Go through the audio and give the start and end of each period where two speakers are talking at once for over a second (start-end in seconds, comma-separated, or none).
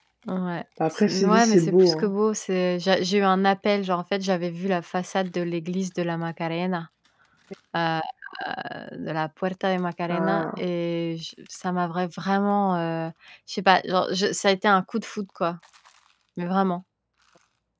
0.9-2.1